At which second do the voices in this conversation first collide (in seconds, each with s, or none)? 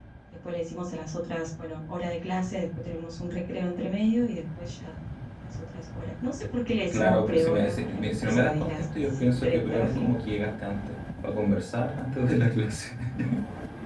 6.9 s